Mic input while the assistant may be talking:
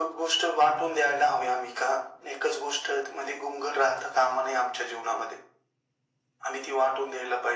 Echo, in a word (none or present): present